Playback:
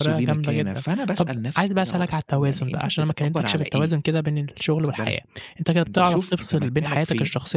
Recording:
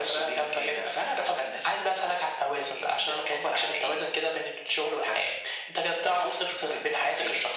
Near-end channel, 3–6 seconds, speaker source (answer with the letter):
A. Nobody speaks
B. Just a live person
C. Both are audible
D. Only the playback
D